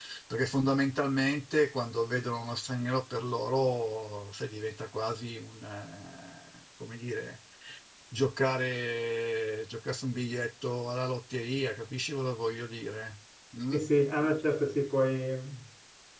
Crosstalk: none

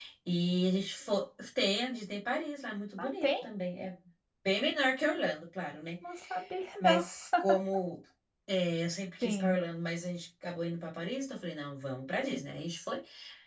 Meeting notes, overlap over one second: none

